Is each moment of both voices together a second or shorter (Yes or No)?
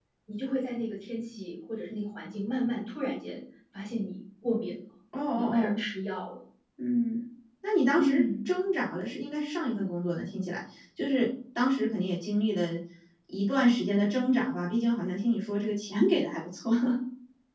Yes